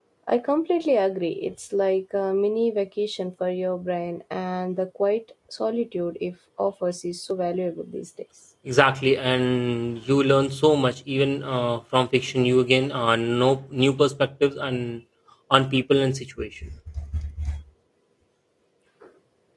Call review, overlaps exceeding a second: none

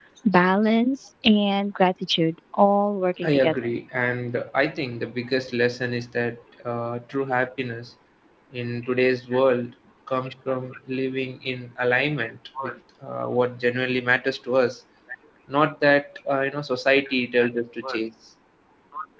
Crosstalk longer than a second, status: none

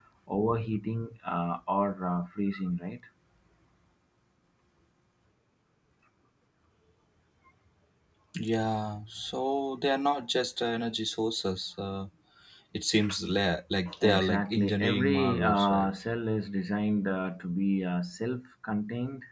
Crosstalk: present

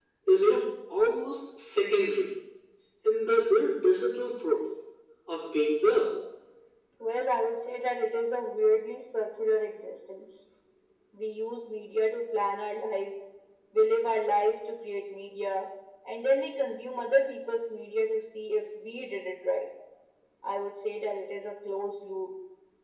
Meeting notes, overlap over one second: none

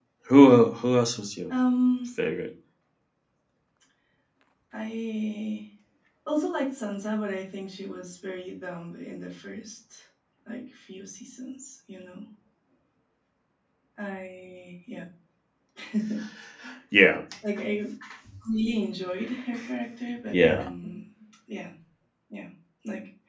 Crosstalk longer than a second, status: none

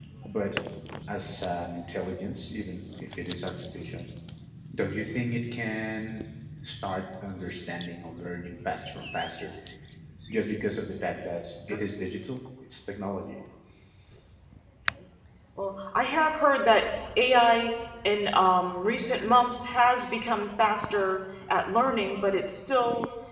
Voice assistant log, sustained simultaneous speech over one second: none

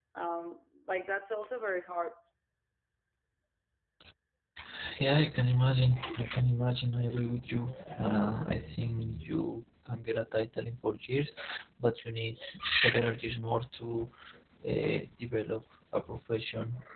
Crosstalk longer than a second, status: none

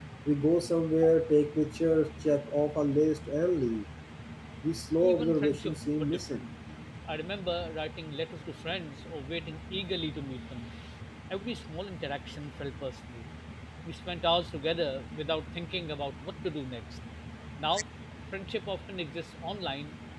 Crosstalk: present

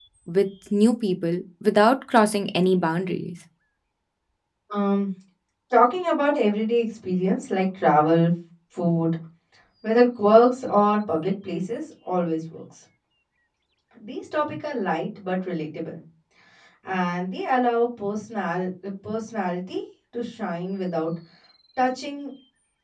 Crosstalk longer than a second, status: none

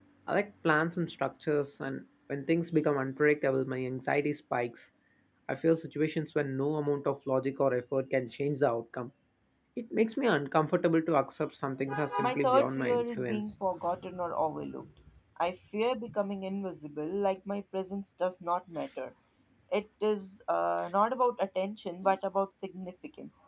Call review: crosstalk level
present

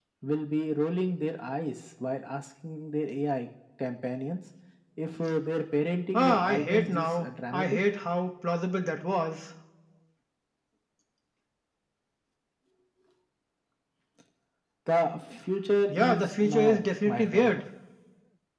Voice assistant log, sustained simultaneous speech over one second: present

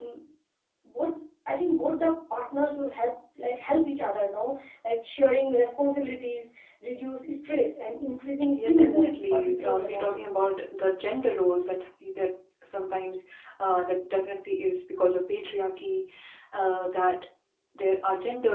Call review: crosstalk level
present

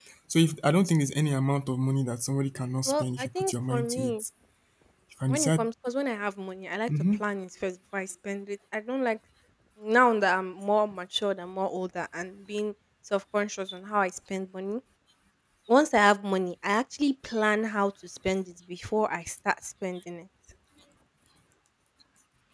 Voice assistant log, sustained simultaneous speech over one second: present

